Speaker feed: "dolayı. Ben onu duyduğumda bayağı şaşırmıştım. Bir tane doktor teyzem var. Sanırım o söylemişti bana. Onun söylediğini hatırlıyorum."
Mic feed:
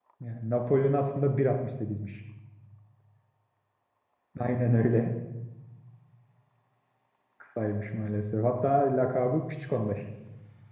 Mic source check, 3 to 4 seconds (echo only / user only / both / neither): neither